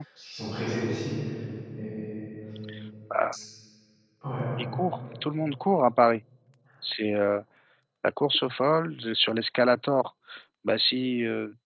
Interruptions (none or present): none